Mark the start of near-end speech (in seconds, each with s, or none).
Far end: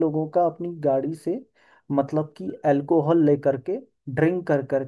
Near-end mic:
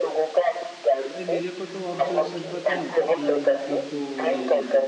1.2 s